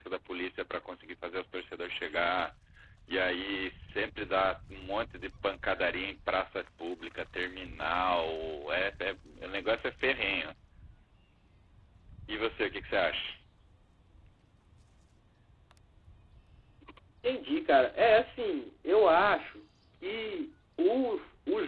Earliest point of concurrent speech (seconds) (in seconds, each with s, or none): none